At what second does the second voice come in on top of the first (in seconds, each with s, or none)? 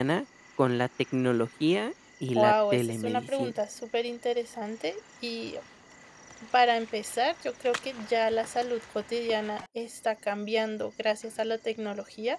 2.4 s